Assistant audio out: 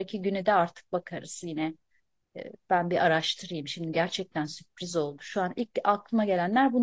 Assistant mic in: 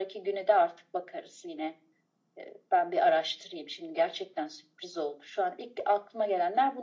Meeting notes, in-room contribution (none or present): none